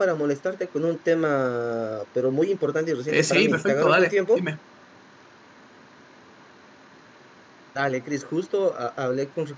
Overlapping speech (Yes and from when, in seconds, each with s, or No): Yes, from 3.1 s